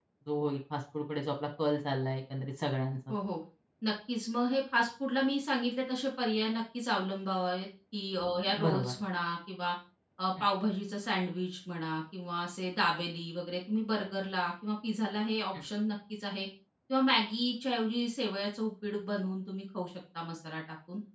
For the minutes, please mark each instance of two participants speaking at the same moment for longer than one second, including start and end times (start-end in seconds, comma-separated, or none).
none